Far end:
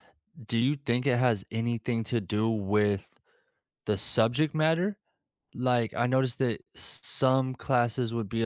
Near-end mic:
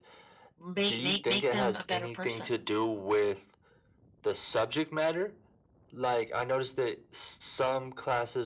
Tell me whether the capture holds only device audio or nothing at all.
No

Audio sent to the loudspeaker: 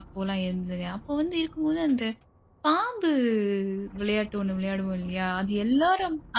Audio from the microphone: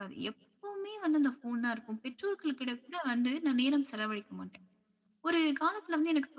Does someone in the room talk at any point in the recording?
Yes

